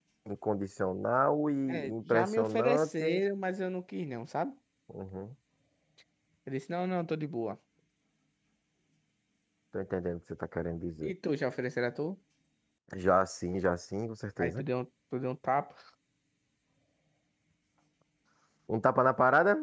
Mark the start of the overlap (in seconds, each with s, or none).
1.7 s